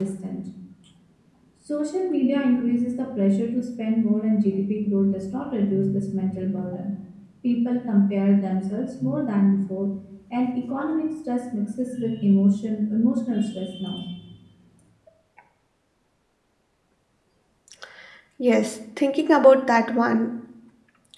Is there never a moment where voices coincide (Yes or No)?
Yes